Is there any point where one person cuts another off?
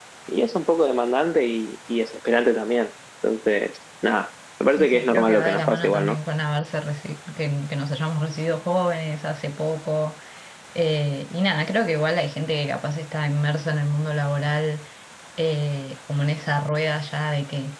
Yes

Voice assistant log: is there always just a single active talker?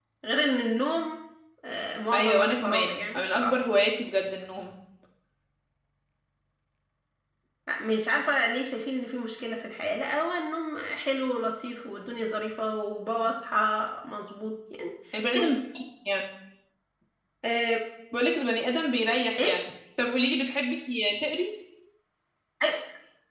No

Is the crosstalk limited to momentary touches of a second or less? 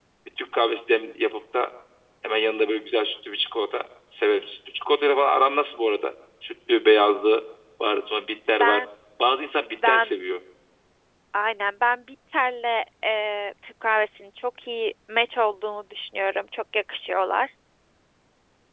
Yes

